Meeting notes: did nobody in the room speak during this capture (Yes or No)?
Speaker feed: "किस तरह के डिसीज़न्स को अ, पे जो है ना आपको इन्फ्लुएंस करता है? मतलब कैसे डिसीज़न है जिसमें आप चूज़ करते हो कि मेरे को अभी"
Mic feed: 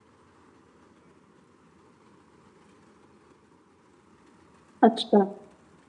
No